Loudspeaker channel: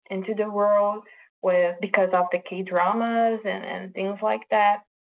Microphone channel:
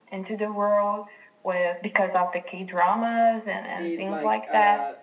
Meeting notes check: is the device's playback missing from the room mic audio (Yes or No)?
No